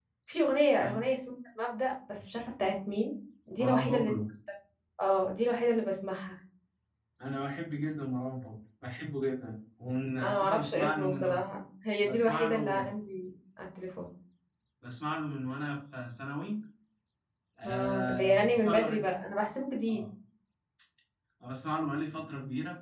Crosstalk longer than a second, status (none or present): present